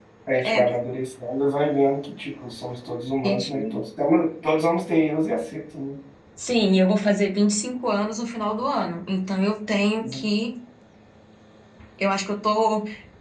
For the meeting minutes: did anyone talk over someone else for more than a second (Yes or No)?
No